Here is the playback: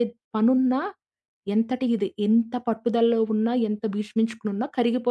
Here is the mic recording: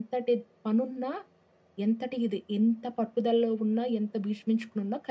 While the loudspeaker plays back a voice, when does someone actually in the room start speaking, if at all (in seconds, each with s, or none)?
none